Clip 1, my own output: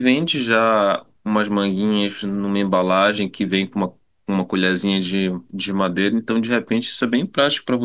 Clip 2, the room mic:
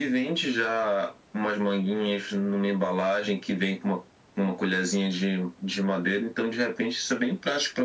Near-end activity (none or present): none